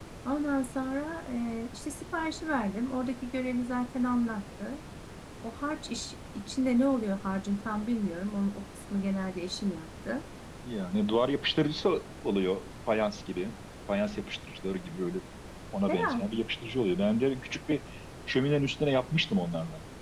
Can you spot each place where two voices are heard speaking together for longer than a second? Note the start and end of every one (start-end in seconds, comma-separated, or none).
none